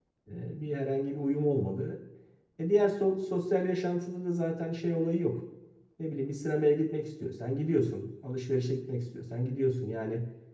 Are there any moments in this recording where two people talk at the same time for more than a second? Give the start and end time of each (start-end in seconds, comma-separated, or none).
none